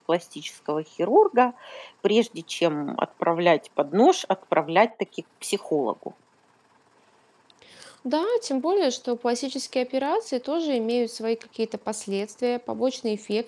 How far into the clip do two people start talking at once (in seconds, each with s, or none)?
none